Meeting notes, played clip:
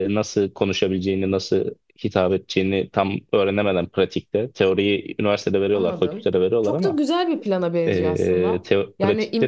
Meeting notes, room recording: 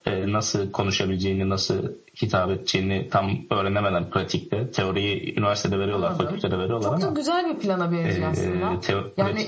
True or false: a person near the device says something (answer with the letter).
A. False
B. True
A